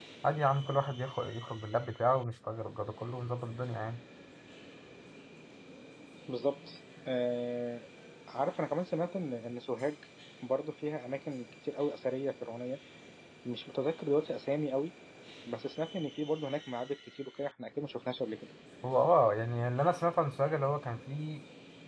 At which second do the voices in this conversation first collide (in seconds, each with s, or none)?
none